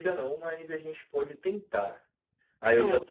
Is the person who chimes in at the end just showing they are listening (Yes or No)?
Yes